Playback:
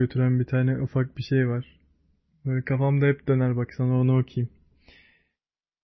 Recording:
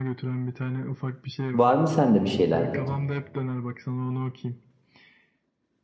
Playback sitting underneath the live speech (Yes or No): Yes